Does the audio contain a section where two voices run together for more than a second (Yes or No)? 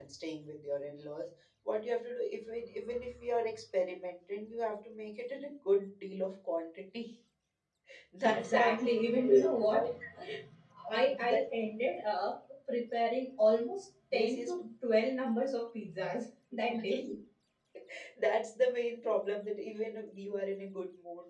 Yes